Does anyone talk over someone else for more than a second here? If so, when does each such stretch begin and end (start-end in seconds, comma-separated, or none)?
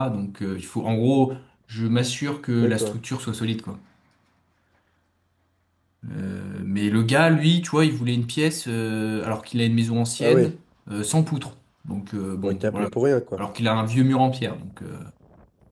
none